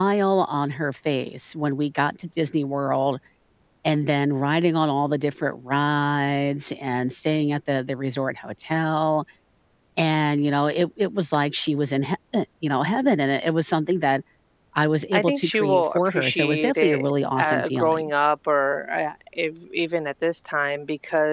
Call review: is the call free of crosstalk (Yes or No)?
No